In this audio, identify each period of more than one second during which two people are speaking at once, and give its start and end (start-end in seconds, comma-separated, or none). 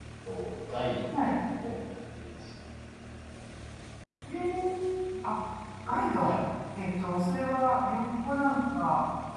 none